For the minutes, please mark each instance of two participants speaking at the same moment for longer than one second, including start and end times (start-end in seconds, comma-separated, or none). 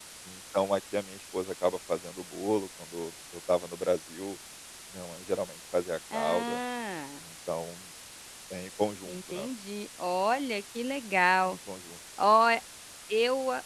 none